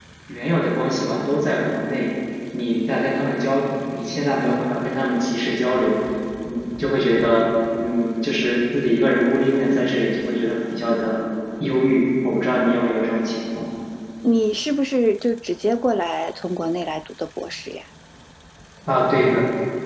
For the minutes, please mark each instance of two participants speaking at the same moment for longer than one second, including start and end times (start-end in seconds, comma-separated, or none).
none